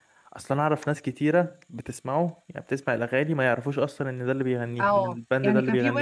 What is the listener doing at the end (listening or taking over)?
taking over